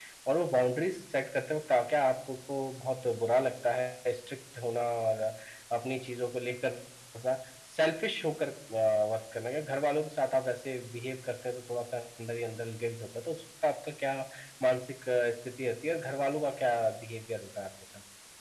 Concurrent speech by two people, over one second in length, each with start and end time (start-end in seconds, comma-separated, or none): none